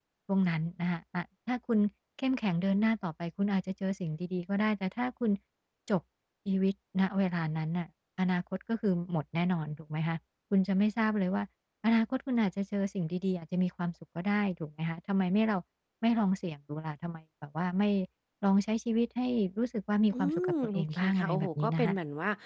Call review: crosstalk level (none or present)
present